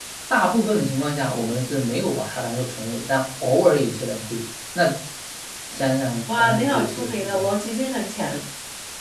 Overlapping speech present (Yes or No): Yes